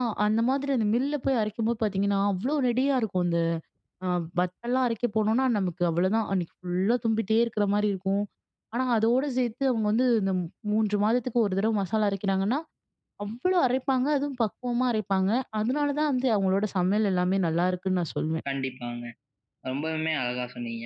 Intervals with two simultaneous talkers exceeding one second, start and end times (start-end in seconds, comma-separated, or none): none